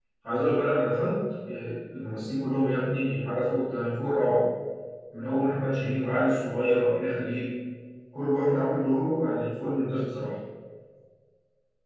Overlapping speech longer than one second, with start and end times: none

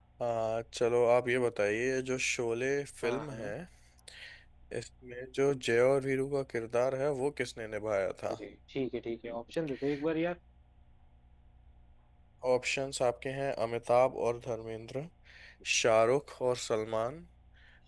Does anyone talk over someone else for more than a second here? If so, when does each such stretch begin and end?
none

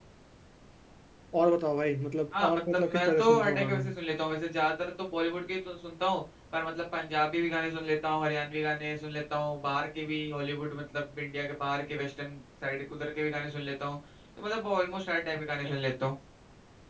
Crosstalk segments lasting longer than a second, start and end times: 2.4-3.8

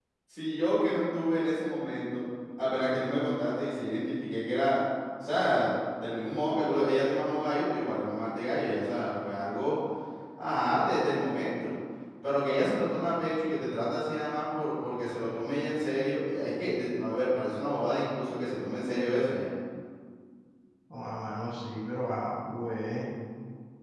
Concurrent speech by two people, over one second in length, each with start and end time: none

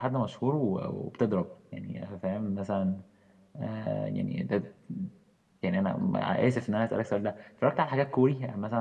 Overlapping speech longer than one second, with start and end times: none

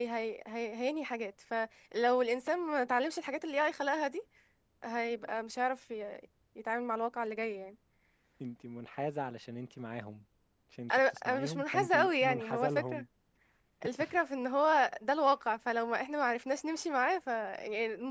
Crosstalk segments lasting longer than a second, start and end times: 10.9-13.0

